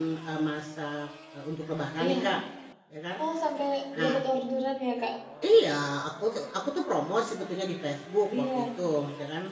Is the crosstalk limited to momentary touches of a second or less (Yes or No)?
Yes